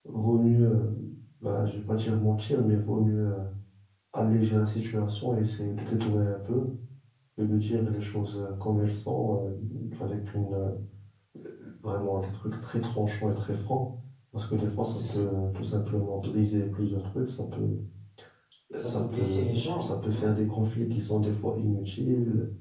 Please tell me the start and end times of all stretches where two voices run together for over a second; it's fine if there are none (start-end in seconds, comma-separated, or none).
18.9-20.4